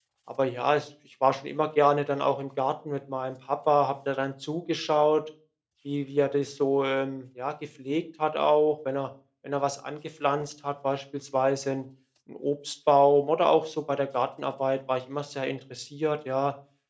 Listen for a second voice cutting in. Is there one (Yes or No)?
No